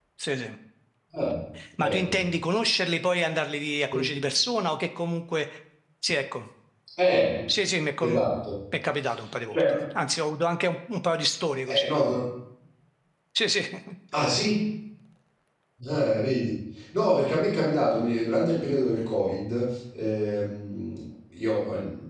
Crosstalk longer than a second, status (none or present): none